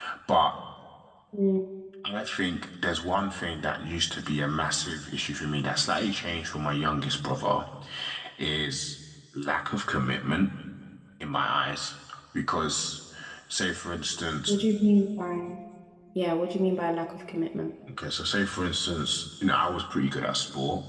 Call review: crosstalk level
none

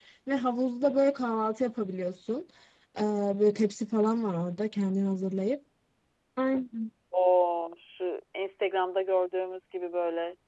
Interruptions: none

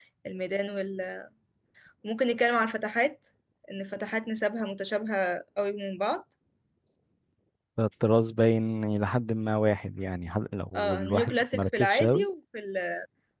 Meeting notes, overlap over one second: present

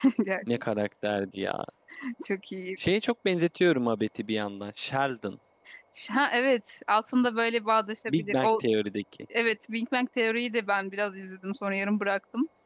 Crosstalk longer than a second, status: none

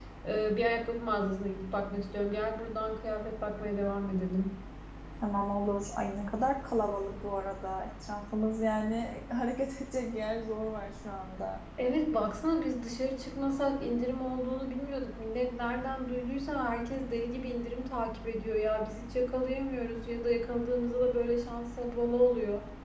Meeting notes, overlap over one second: none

